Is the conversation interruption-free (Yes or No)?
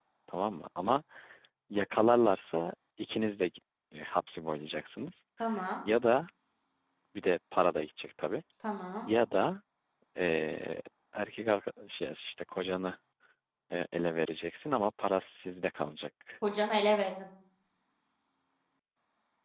Yes